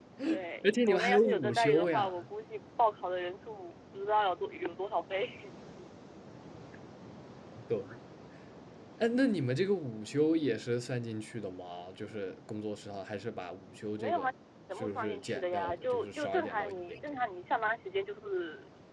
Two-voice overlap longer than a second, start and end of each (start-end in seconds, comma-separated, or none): 0.6-2.2, 14.8-17.2